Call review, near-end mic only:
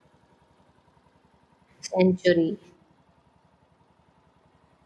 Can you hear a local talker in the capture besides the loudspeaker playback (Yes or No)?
Yes